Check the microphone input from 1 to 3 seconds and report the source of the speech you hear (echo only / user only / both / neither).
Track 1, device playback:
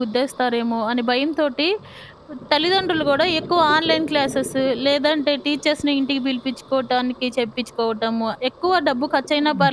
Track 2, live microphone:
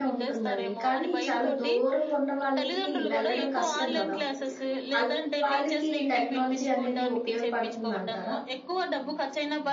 both